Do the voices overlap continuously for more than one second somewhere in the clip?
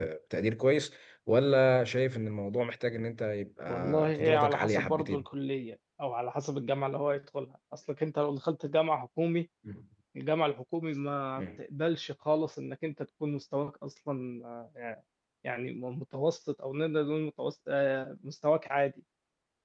Yes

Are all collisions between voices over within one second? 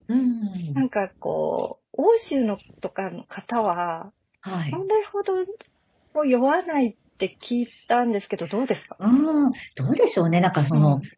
Yes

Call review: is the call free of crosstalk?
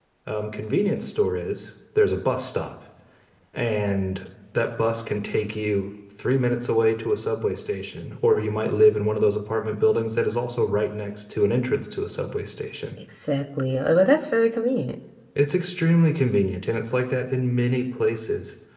Yes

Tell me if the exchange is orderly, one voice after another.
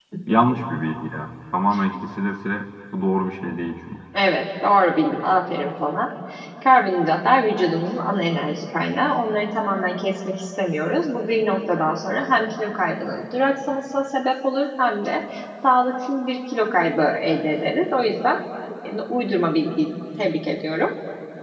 Yes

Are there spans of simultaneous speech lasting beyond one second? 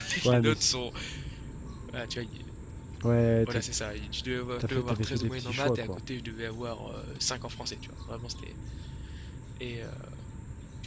Yes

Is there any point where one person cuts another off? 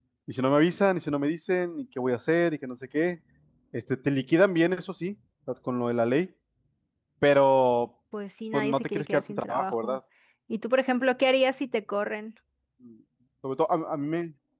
Yes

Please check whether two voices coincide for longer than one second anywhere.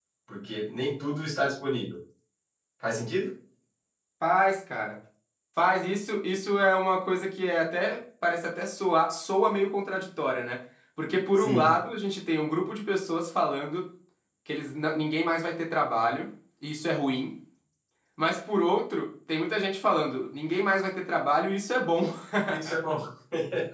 No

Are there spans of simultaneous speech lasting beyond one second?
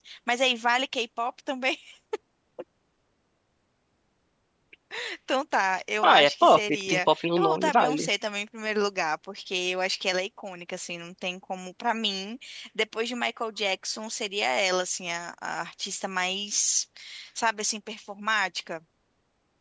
Yes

